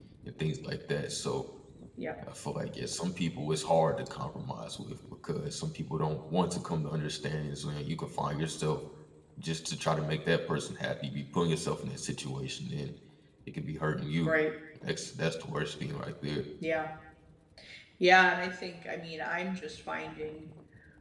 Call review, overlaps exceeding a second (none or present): none